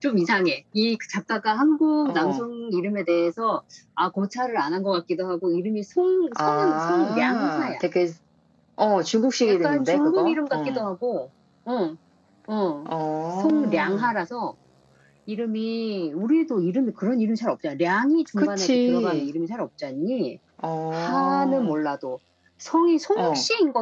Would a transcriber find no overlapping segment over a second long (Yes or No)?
No